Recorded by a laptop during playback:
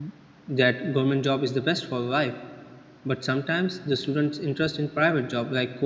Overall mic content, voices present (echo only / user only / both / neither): user only